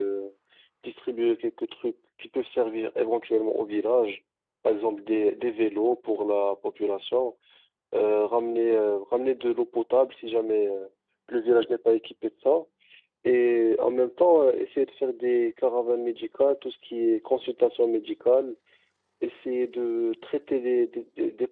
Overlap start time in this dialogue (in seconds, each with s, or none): none